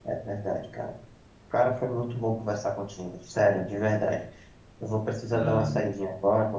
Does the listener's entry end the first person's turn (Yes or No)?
No